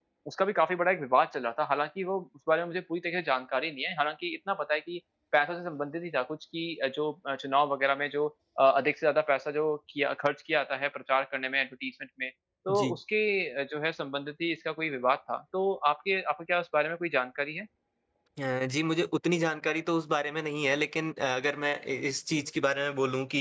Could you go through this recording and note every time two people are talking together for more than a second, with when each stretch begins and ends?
none

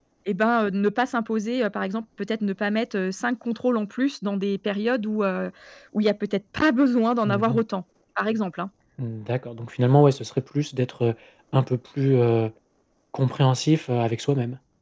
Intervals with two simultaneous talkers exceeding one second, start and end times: none

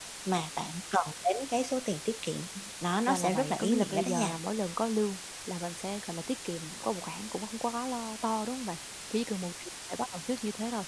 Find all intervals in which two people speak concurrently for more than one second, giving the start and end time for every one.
3.0-4.3

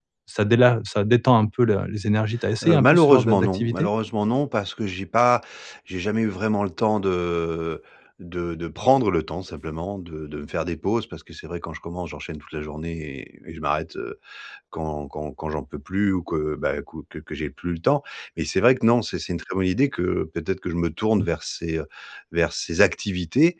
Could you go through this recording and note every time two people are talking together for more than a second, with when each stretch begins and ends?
2.6-3.9

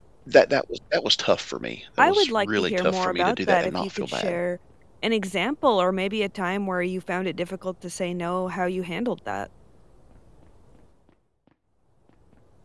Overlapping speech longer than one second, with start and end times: 2.0-4.4

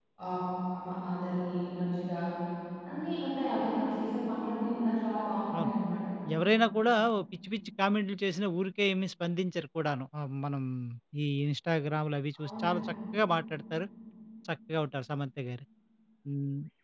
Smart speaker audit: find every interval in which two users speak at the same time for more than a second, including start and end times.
none

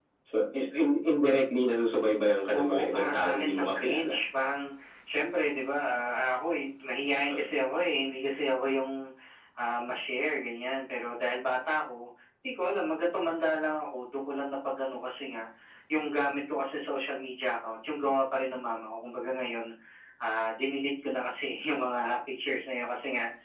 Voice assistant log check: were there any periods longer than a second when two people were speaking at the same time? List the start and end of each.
2.5-4.2

